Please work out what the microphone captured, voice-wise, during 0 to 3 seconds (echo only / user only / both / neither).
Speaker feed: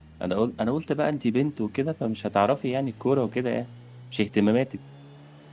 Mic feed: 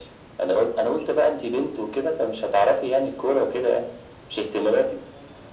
echo only